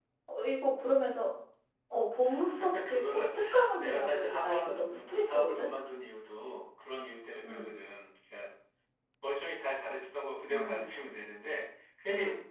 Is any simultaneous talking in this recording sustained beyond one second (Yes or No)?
Yes